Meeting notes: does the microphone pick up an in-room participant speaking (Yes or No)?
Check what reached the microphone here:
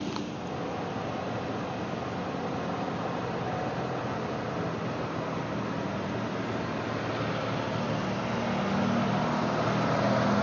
No